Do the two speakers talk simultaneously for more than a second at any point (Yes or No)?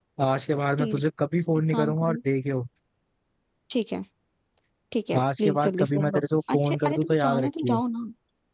Yes